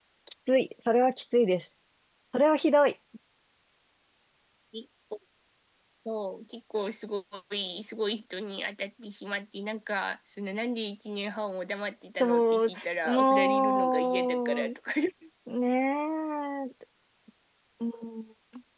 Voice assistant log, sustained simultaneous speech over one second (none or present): present